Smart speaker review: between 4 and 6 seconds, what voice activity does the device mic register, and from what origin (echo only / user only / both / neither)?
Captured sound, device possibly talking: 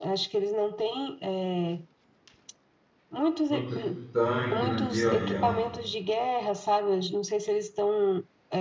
both